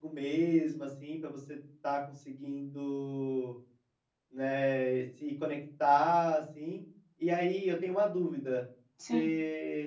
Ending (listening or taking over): listening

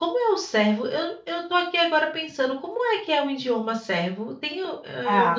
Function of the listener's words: taking over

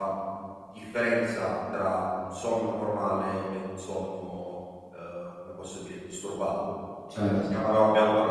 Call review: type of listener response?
listening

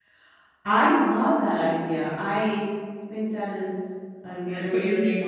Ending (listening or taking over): taking over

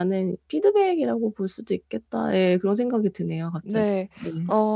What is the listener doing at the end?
taking over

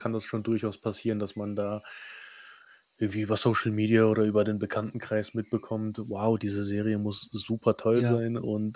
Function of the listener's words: listening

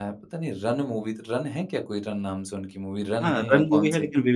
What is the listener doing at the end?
taking over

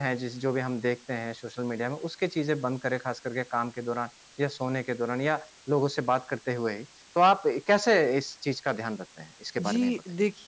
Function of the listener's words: taking over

